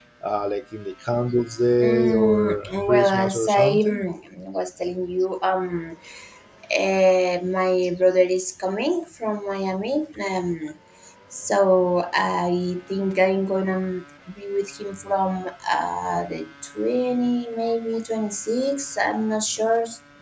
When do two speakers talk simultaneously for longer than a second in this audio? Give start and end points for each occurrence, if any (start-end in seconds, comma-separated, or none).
1.8-4.0